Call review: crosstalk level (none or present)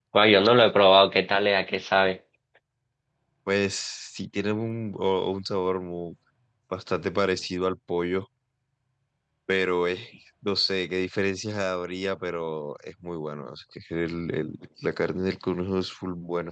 none